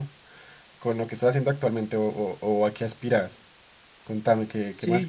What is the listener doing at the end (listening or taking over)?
taking over